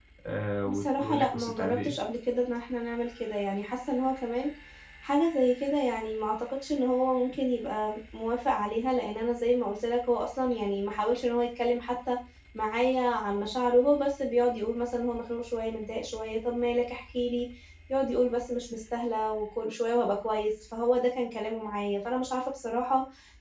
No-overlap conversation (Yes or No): No